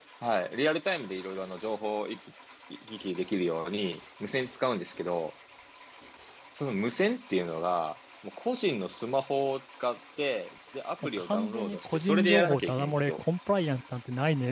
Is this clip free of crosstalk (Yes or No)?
No